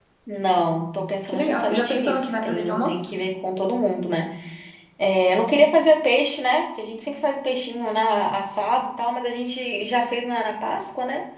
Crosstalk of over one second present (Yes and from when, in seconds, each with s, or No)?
Yes, from 1.3 s